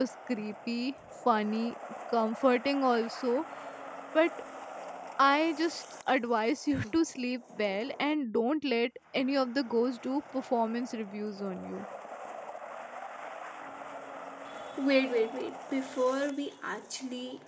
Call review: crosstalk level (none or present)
none